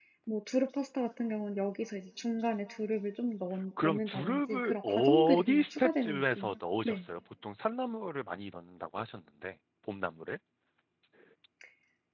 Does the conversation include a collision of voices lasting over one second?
Yes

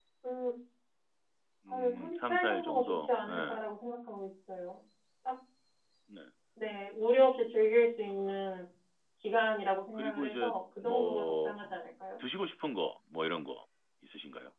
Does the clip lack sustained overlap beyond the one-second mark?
No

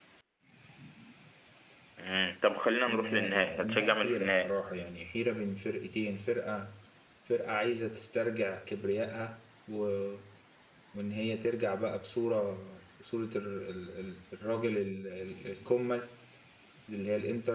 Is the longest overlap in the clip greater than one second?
Yes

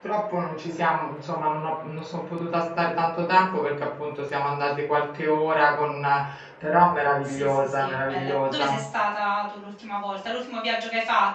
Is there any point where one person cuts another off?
Yes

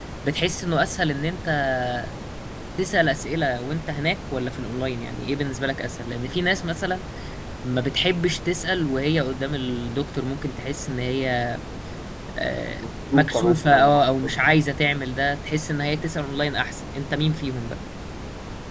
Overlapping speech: Yes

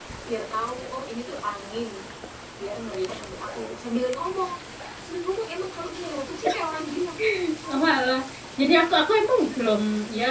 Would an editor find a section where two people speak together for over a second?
No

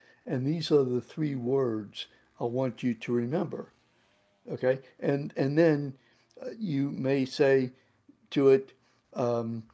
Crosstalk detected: No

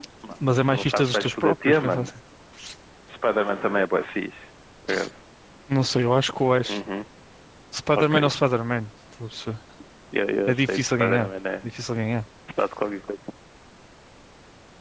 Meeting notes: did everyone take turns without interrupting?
No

